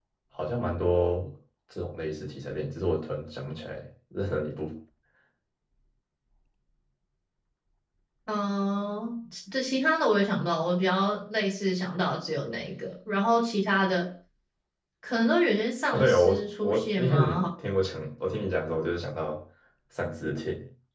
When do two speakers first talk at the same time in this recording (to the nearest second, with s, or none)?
16 s